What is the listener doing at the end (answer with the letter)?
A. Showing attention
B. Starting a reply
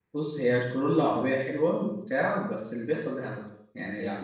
B